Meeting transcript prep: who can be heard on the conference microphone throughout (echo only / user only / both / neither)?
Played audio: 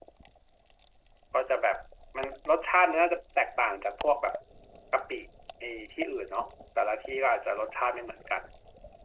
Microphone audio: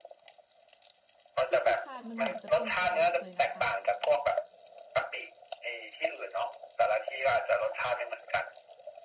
both